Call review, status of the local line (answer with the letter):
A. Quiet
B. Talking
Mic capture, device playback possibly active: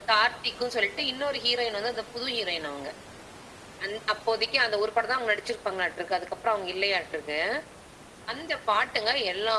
A